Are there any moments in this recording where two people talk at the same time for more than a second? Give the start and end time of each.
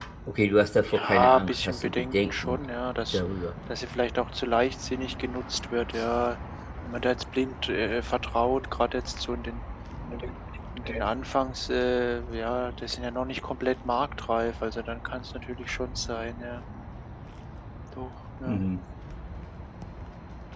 0.9-2.6

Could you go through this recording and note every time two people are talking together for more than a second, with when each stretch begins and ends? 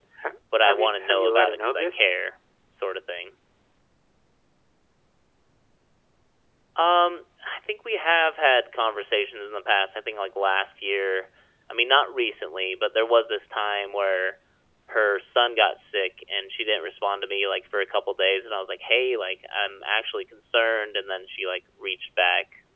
0.6-2.0

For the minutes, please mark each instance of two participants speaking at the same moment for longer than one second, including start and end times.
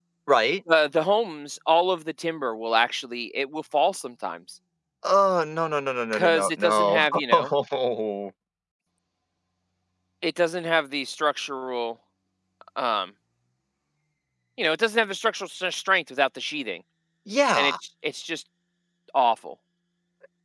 6.1-7.5

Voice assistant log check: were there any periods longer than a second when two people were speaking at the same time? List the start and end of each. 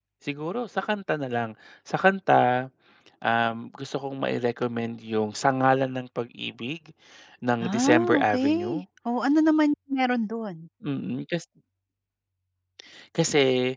7.6-8.8

